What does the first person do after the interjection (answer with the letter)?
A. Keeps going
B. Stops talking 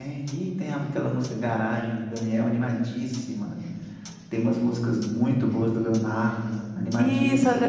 B